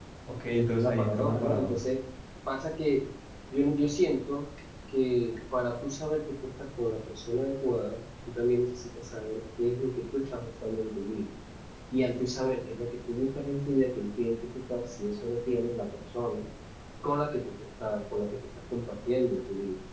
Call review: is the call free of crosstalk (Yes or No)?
No